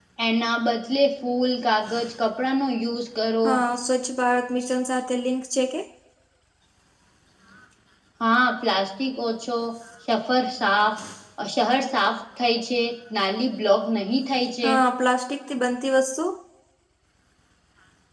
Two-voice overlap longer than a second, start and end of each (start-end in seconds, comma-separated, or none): none